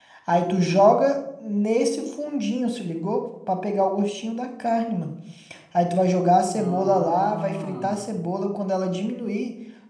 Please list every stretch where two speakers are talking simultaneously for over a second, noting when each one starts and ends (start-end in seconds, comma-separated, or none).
6.5-8.0